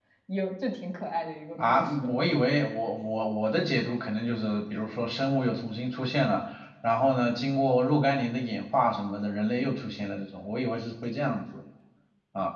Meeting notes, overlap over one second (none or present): none